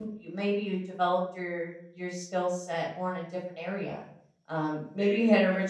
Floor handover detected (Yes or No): No